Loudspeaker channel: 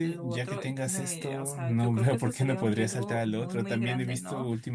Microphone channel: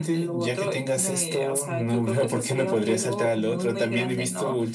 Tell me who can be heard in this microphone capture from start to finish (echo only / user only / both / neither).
echo only